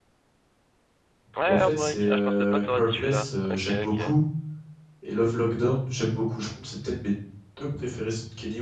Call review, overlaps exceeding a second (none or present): present